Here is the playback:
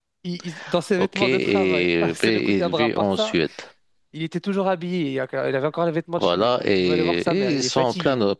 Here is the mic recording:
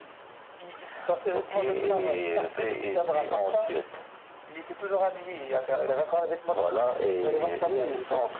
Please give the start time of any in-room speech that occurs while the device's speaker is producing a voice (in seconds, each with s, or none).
none